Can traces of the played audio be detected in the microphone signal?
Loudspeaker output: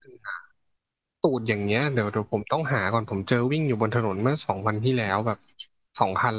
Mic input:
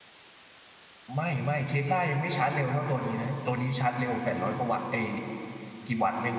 No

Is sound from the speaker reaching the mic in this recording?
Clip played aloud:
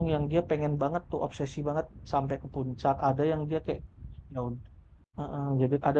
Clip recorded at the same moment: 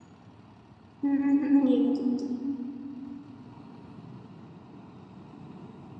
No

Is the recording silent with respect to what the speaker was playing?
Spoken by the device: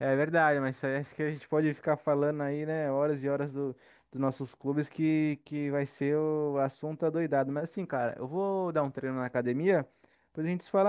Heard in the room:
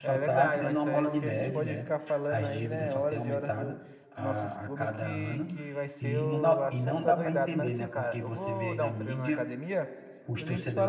No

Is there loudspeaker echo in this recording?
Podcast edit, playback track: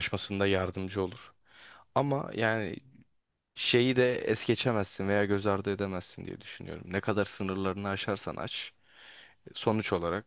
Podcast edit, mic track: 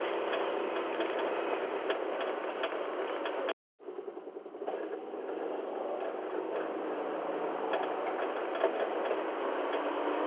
No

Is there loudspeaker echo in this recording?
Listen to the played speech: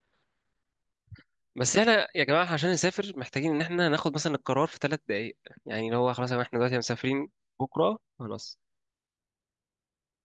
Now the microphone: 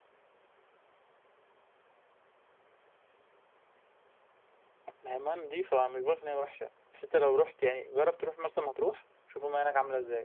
No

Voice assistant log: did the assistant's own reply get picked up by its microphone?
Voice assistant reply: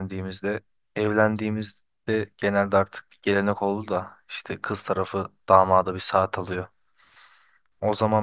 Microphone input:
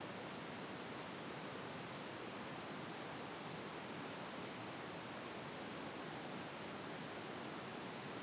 No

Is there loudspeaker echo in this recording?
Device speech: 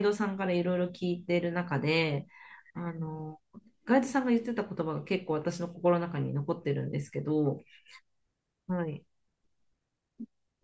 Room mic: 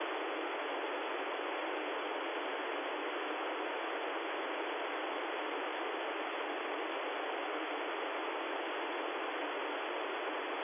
No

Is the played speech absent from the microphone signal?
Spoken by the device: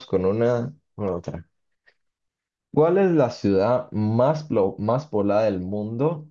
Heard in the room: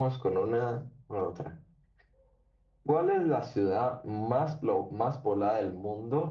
No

